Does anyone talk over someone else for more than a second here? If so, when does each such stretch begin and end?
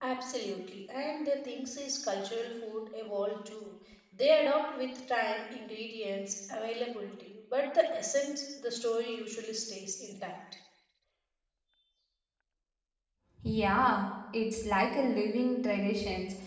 none

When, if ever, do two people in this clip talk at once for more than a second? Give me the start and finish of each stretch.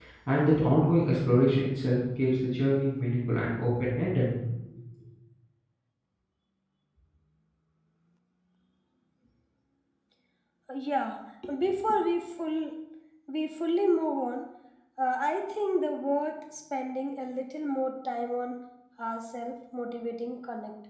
none

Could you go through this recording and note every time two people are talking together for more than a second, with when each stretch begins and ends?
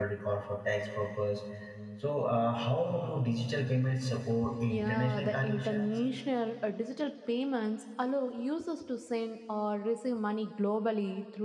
4.7-5.9

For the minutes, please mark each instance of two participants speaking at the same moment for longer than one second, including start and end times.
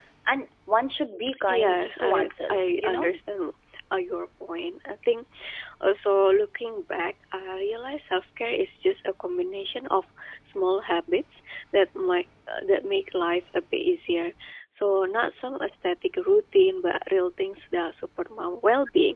1.5-3.1

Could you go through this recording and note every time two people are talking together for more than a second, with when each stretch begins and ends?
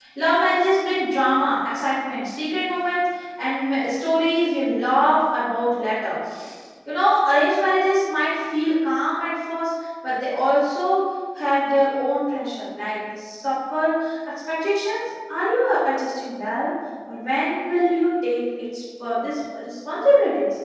none

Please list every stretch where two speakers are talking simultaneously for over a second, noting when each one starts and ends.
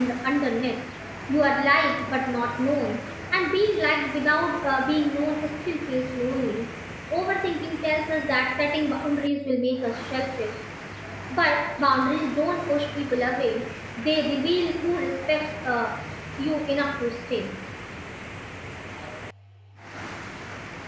none

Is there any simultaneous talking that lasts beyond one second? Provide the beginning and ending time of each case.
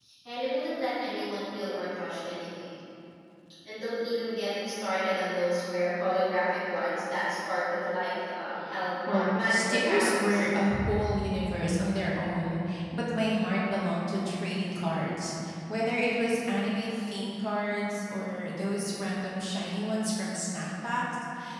9.1-10.5

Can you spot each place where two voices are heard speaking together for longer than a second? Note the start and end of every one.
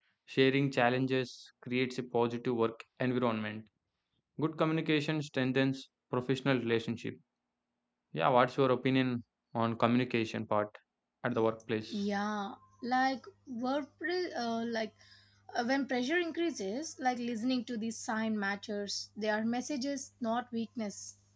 none

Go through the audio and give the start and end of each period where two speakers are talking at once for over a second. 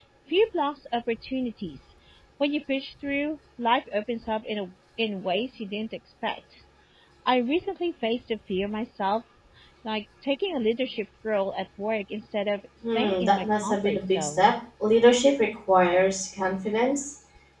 12.8-14.5

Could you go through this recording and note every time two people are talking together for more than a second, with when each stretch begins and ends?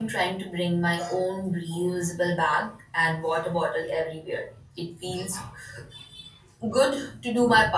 none

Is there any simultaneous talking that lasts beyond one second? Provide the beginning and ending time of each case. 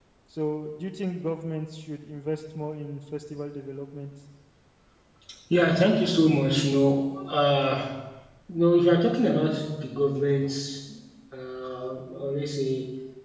none

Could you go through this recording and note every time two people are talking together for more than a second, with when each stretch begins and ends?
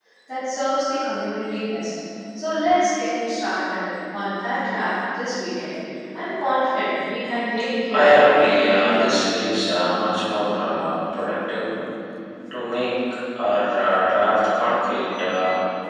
7.9-9.2

